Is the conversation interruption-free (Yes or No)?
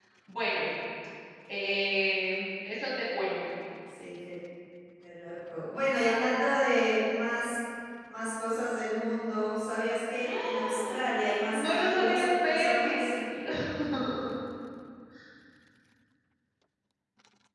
No